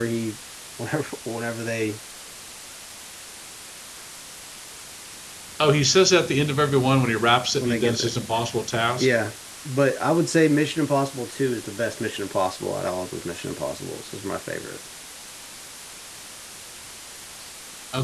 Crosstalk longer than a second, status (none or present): none